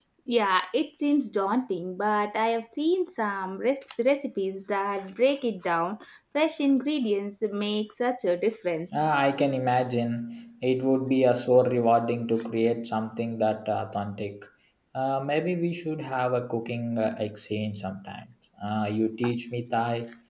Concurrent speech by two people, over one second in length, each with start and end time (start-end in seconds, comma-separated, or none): none